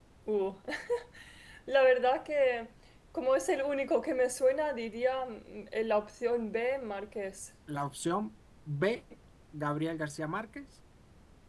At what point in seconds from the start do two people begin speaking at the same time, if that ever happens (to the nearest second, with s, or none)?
none